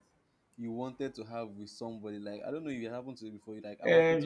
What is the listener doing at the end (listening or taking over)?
taking over